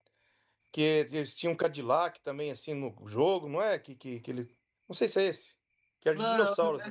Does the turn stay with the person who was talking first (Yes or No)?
No